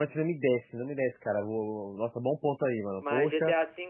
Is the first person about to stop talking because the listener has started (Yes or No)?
Yes